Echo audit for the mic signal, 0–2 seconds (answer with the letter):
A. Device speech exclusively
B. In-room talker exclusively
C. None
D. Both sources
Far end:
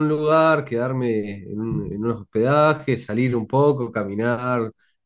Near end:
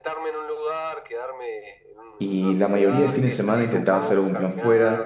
A